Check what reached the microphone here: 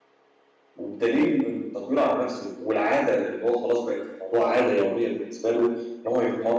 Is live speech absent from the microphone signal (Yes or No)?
No